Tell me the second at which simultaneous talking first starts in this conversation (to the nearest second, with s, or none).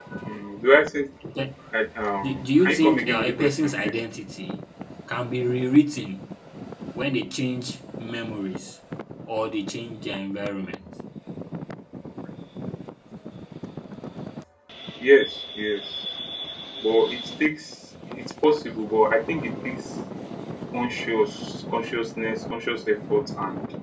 2 s